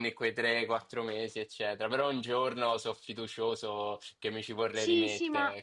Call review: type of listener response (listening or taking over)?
taking over